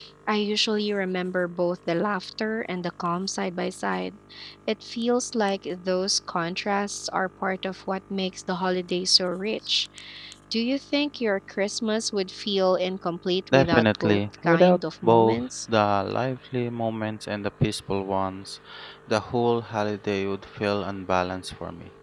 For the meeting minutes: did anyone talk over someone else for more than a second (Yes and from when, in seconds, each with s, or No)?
Yes, from 13.5 s